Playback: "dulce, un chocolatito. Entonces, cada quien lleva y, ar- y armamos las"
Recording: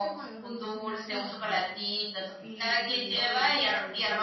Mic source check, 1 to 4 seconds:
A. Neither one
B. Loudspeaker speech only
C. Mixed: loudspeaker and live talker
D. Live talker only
C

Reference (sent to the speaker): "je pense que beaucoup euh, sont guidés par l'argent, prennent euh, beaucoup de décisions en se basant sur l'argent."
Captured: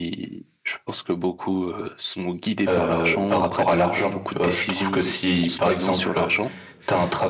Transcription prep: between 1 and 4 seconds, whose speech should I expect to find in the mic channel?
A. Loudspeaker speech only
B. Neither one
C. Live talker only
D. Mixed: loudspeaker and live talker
D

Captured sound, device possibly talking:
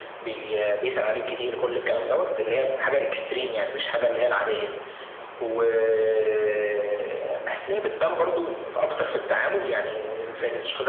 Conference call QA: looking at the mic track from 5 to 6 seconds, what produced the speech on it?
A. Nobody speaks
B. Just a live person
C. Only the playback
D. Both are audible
C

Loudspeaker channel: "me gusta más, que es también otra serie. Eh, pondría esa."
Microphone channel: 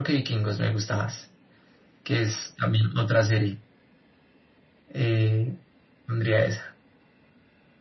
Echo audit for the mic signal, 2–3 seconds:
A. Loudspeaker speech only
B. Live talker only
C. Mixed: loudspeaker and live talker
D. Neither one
A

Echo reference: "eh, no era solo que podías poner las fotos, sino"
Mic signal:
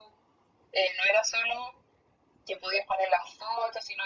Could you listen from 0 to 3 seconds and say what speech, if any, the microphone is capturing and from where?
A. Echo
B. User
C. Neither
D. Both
A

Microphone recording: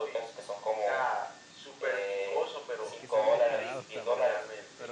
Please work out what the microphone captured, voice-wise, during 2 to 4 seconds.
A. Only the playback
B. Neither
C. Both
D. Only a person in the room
C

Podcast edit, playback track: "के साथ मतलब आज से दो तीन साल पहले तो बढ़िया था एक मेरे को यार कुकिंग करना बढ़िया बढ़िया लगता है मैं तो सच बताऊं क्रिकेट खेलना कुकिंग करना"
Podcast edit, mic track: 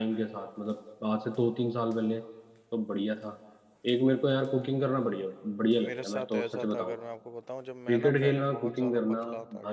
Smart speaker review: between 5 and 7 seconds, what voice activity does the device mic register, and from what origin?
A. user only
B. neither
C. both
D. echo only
C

